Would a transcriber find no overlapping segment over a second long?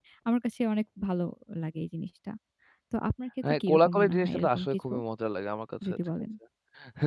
No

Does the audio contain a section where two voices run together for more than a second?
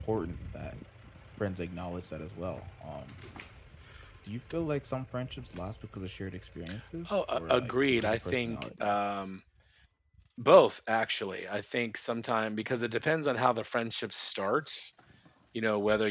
Yes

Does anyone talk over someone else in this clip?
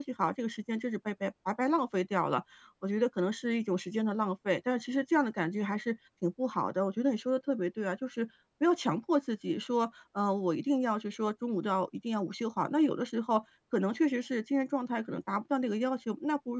No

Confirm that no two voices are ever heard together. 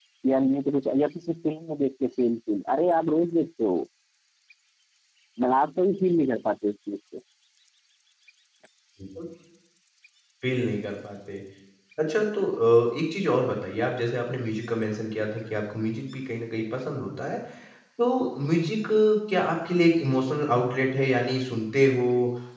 Yes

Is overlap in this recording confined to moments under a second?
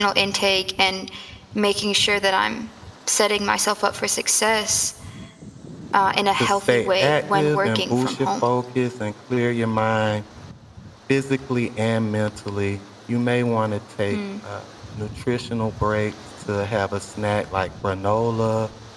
No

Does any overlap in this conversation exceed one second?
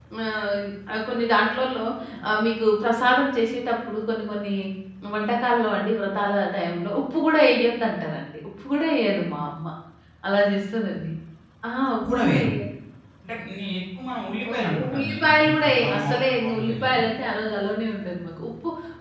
Yes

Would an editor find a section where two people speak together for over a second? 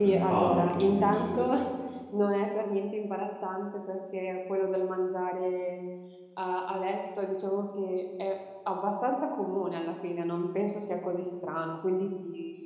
Yes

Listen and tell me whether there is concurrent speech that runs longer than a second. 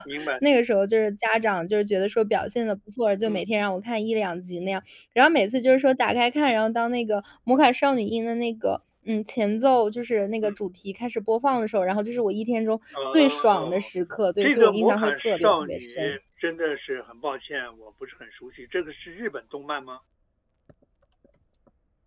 Yes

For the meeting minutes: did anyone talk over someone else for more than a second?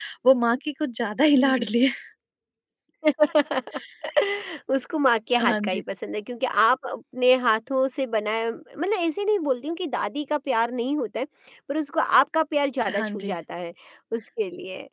No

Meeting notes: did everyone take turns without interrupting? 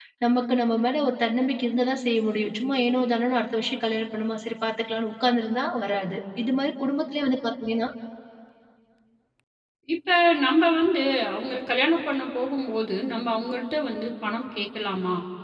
Yes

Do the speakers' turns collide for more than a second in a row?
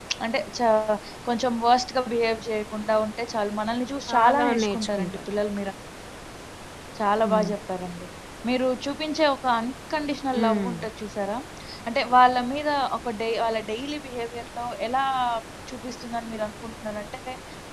Yes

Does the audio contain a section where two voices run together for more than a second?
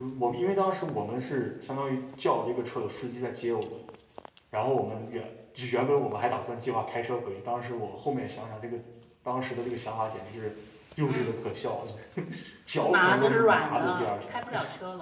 Yes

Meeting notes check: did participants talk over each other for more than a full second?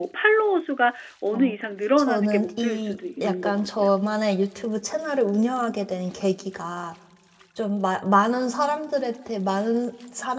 Yes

